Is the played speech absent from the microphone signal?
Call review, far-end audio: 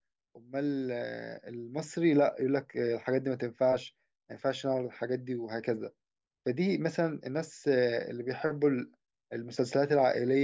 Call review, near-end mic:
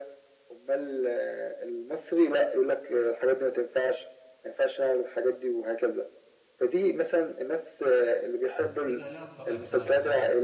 No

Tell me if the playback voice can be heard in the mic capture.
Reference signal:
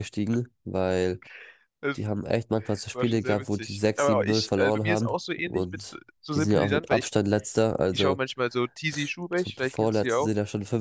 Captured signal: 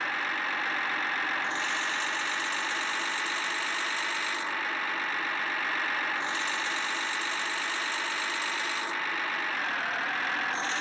No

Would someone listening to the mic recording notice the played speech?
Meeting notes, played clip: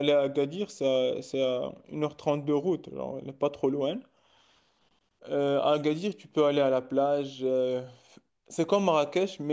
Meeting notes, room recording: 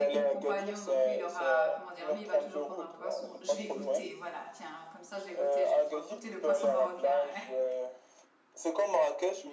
Yes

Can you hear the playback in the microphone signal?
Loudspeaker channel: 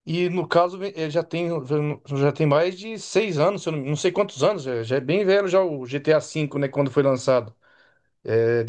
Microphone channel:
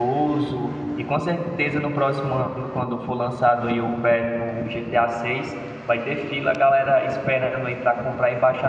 No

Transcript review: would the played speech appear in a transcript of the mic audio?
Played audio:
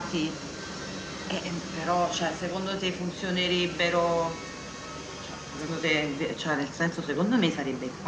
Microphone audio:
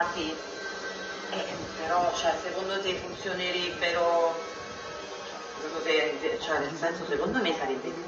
Yes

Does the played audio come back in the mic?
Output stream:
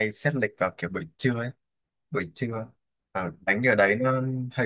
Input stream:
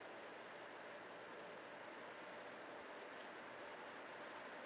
No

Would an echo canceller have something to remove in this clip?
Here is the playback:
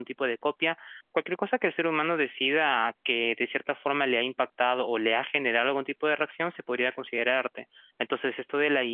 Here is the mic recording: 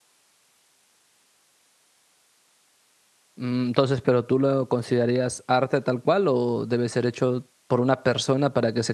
No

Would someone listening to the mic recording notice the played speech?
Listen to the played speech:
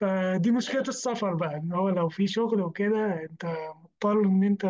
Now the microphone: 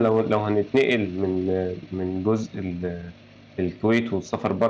No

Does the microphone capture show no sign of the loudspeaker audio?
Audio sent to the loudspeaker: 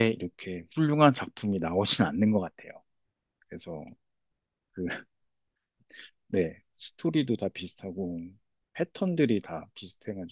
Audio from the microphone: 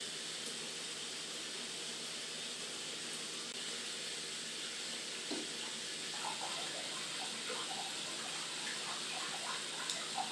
Yes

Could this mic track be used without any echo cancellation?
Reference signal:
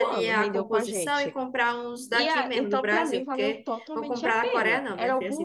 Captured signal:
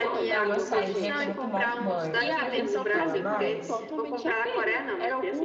No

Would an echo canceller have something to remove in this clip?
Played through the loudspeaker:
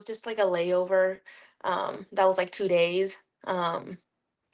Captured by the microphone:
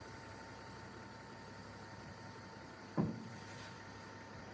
No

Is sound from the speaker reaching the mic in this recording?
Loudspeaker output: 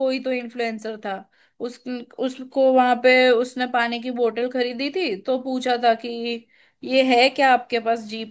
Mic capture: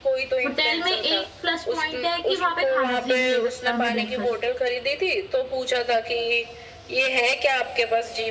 Yes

